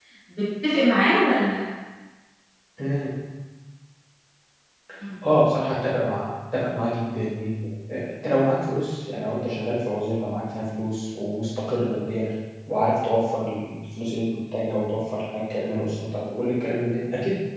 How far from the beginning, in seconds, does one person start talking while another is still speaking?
none

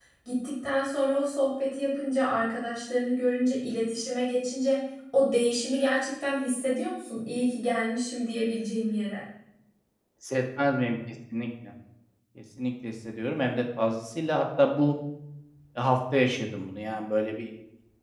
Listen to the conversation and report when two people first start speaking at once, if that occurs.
none

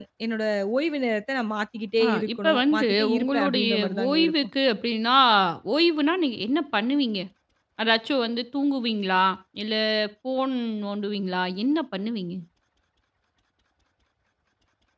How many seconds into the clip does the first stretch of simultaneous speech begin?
2.0 s

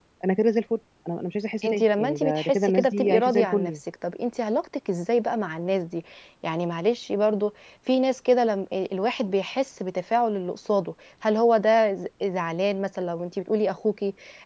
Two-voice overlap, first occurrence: 1.6 s

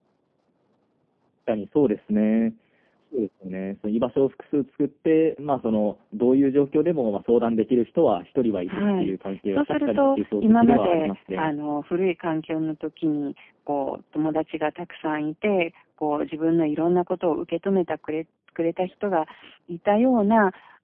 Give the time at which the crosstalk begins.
8.7 s

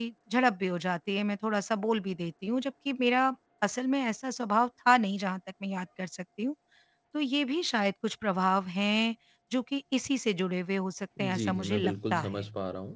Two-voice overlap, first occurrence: 11.2 s

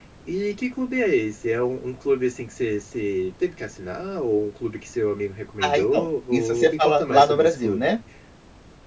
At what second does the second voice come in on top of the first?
5.6 s

